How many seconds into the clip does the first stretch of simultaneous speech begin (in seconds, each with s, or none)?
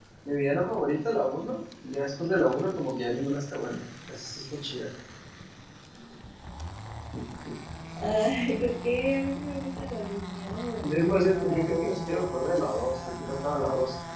10.8 s